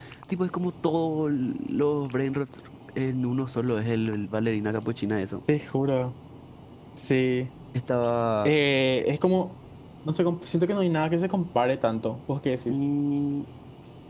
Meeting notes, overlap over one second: none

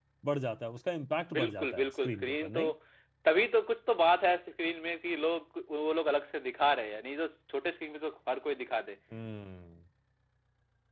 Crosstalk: present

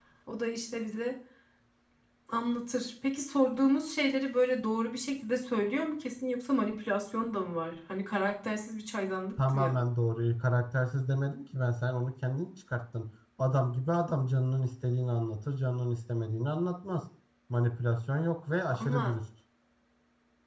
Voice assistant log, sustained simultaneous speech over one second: none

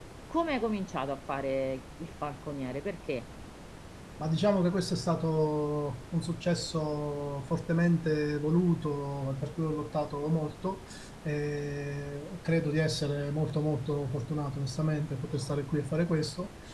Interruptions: none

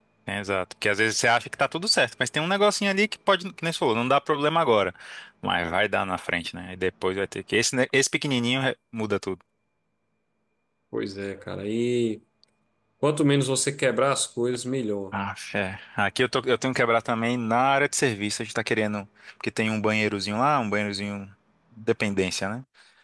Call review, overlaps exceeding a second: none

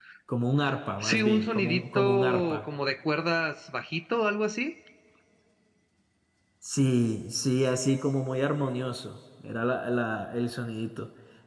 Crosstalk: present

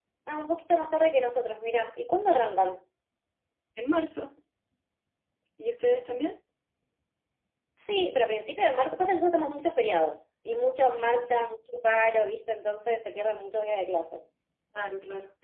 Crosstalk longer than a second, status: none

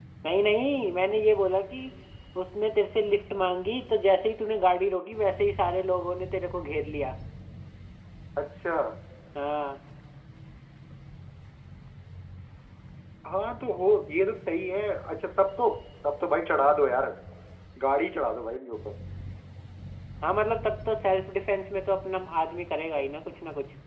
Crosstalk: none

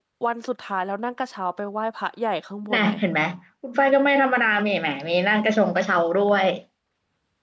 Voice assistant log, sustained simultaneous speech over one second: none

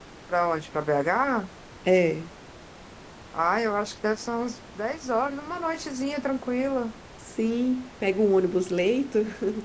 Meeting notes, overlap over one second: none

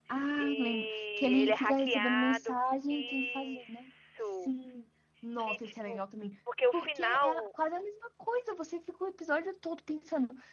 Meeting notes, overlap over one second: present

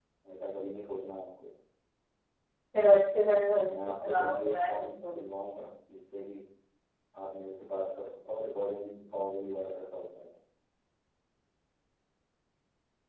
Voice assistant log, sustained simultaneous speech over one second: present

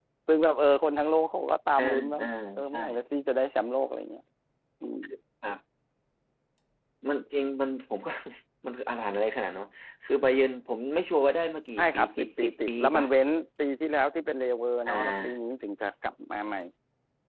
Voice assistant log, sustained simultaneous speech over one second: present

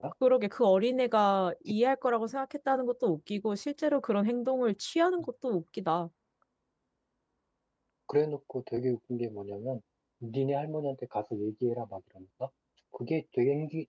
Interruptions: none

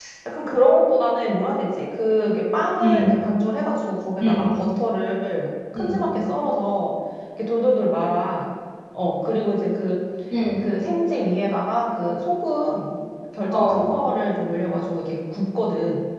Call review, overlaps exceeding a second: none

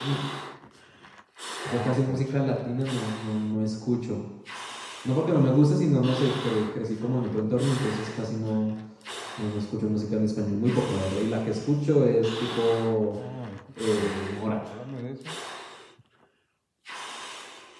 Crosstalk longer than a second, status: none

